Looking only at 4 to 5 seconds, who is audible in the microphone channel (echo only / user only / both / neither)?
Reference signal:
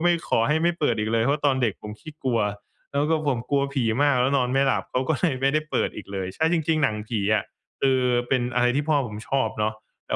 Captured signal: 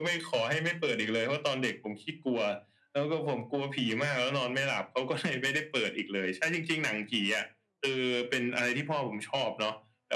echo only